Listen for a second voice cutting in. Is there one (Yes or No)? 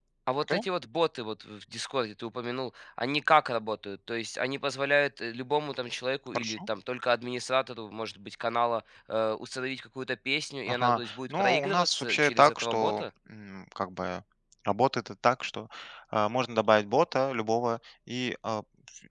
Yes